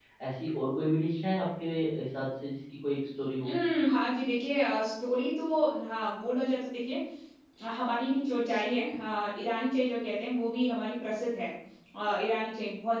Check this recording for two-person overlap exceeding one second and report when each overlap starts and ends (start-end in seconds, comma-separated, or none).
none